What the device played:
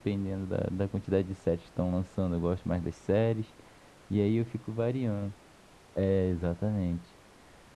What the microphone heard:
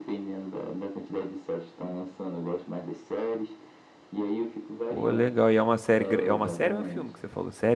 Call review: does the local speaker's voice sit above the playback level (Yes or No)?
Yes